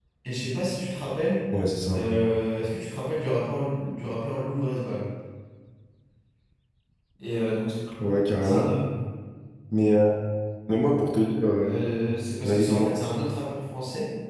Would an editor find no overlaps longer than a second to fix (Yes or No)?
Yes